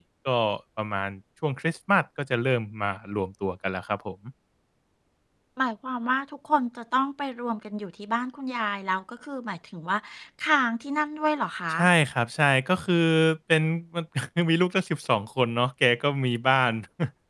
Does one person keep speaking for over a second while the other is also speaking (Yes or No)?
No